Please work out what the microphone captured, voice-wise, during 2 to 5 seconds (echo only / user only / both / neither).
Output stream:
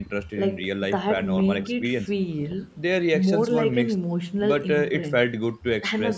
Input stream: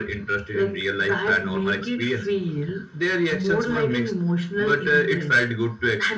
echo only